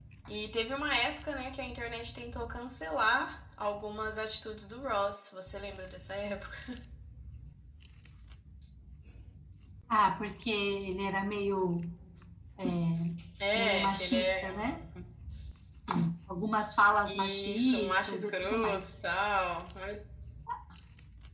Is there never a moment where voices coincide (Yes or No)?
No